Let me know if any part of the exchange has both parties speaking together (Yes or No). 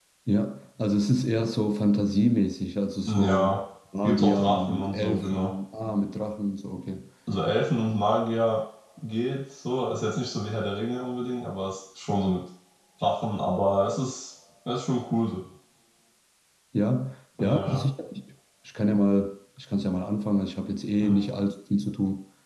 Yes